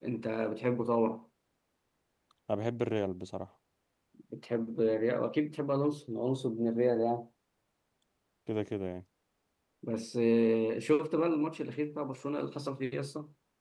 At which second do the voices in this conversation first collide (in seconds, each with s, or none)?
none